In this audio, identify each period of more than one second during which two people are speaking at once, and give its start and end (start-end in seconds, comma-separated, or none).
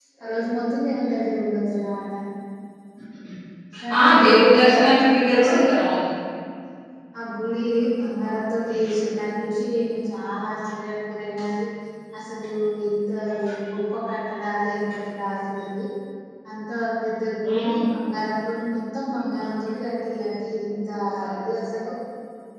4.0-5.7